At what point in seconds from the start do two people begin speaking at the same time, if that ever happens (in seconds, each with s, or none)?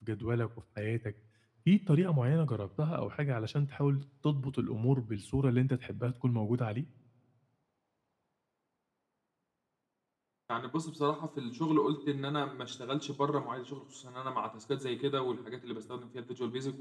none